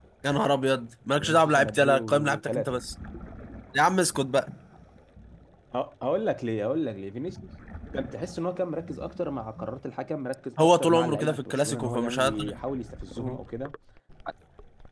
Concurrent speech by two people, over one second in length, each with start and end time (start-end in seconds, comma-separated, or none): 1.2-2.8, 10.6-12.6